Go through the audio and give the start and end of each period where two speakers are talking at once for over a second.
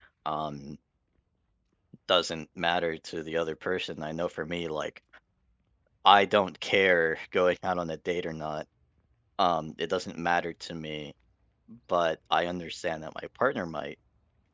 none

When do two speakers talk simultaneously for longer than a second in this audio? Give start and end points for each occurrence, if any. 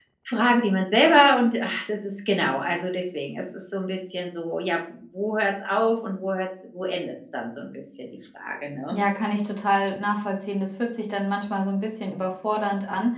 none

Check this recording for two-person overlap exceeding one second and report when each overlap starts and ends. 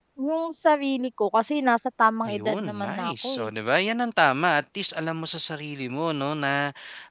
2.3-3.5

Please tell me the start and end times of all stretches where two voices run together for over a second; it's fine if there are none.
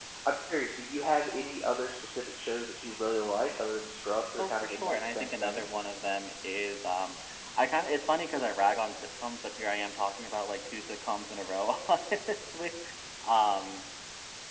4.4-5.7

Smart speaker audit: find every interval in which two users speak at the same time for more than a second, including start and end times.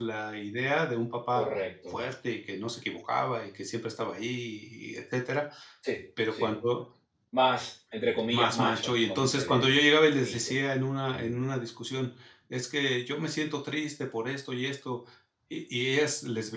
8.3-9.8

